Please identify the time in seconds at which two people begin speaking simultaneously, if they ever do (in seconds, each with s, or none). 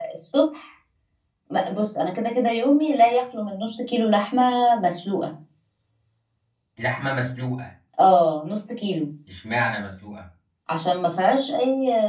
none